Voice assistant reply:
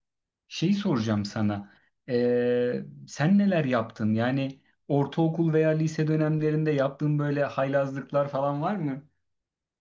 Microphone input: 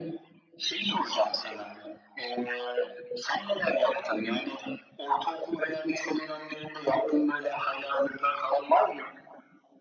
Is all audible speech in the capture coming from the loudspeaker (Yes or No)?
Yes